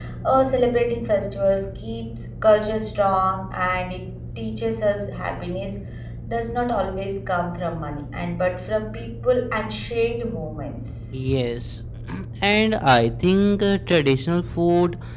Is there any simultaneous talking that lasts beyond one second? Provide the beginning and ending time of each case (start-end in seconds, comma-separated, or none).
none